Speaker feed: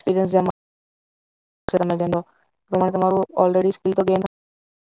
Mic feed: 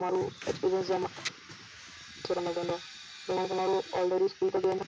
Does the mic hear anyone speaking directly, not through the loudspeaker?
No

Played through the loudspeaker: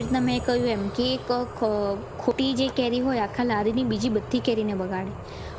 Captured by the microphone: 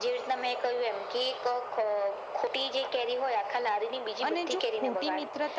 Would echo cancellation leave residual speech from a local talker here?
Yes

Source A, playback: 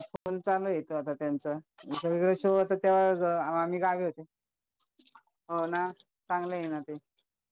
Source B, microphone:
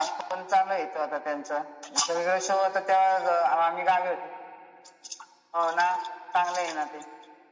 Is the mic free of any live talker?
Yes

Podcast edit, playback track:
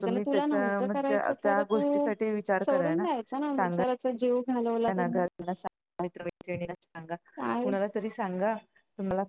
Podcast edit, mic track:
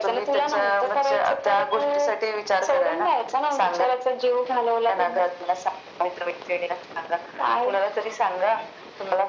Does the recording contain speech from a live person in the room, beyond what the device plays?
No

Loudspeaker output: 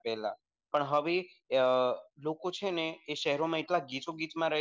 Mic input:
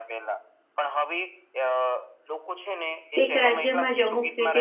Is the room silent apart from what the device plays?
No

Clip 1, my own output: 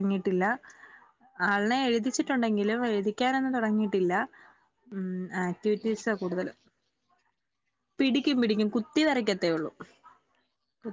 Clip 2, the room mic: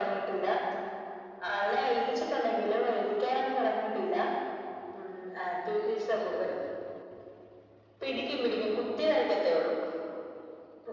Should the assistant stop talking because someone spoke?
No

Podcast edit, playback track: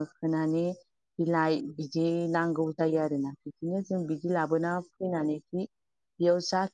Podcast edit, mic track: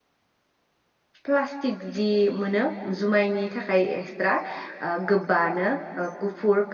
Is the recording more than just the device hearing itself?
Yes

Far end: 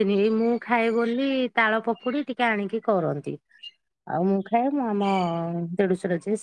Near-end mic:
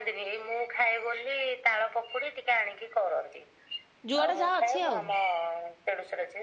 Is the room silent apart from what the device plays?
No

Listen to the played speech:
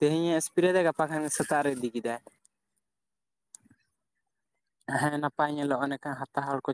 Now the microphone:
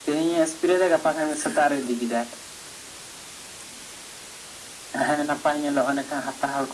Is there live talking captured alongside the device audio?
No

